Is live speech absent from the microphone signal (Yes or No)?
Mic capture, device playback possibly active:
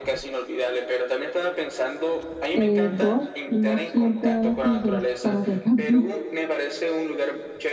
No